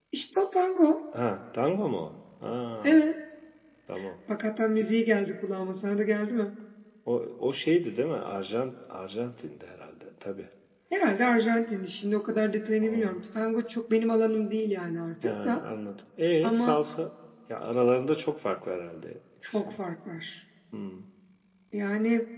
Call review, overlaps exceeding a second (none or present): none